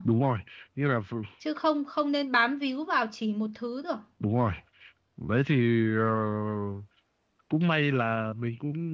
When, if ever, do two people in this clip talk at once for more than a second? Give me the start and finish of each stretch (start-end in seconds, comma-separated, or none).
none